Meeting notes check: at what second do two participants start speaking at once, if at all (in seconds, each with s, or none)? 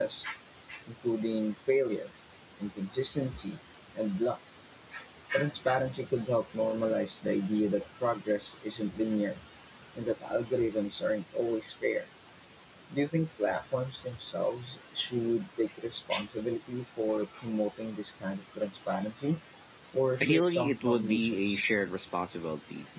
20.2 s